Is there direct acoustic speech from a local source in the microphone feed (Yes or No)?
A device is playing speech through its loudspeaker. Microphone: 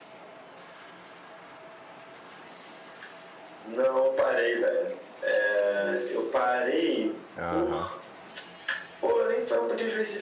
Yes